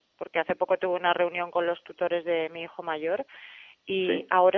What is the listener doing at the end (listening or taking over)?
listening